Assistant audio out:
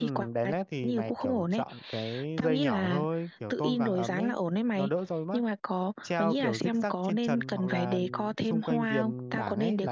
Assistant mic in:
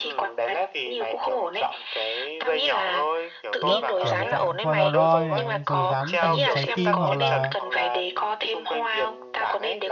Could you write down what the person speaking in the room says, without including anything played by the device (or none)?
lớp kiểu dạng Polaroid này, rồi dán thành hình trái tim hoặc là